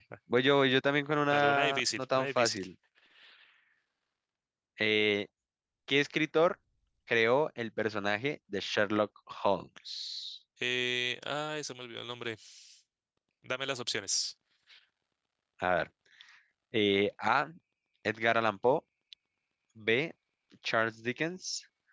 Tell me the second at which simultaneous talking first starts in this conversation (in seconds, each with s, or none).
1.3 s